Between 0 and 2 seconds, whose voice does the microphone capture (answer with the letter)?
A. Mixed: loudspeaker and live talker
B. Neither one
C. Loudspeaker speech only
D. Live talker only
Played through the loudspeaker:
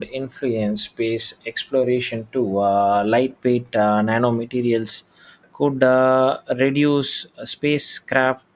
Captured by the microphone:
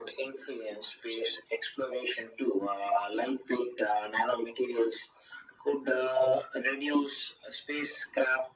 C